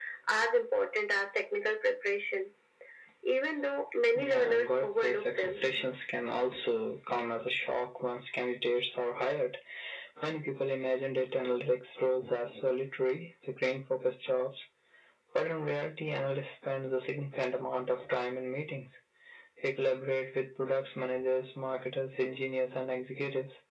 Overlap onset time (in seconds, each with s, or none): 4.1 s